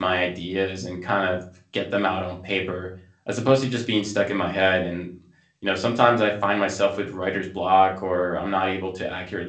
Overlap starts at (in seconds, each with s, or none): none